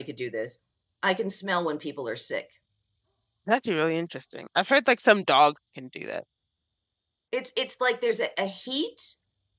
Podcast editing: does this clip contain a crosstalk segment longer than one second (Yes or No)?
No